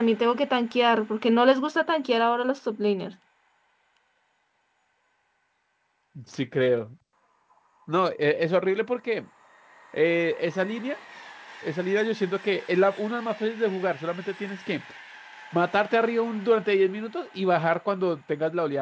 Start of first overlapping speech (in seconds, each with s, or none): none